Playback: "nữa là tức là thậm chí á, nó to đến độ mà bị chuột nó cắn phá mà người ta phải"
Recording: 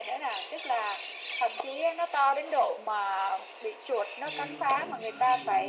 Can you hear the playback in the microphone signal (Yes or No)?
Yes